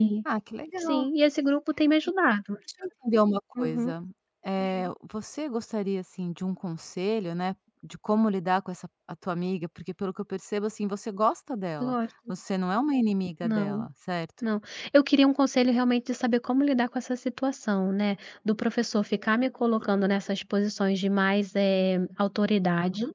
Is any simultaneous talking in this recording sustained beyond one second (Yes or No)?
No